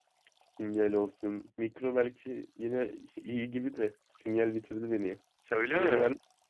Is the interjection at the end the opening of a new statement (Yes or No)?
Yes